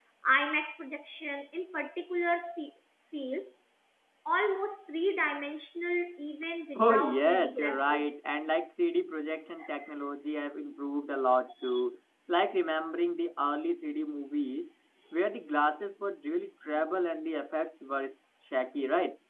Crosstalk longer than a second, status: present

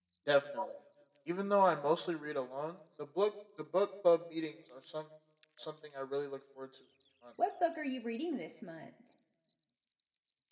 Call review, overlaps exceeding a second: none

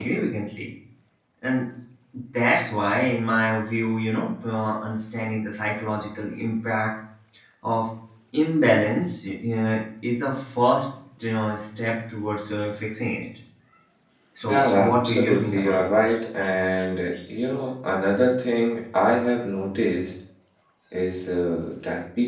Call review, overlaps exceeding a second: present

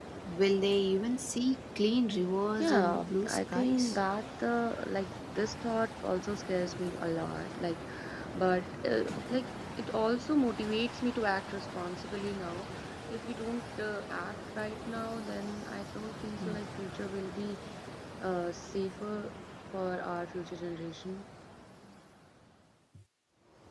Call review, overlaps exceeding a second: present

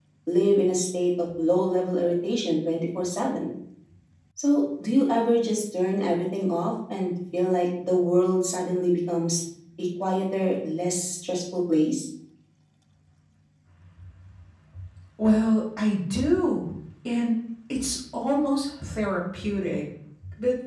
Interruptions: none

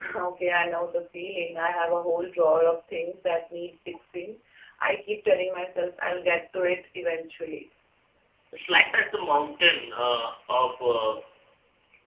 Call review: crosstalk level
none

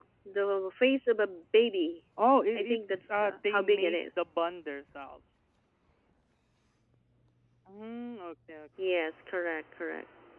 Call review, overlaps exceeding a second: present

